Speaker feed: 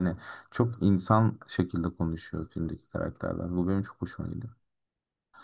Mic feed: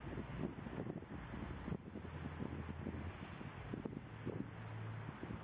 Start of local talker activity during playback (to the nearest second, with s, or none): none